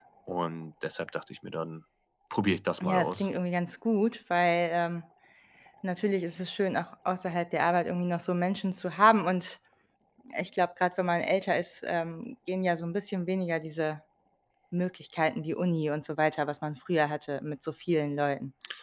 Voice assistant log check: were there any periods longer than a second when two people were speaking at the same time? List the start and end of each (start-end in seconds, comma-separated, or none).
none